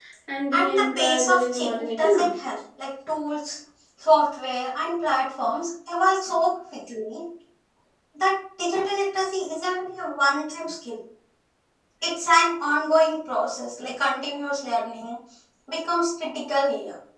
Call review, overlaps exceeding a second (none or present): present